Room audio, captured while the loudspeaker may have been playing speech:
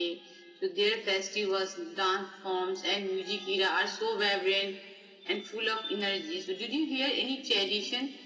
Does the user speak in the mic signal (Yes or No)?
No